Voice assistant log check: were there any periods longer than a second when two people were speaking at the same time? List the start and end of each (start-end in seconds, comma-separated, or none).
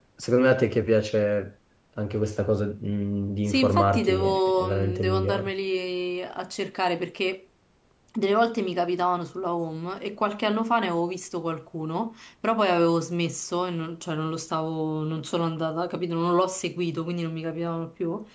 3.5-5.5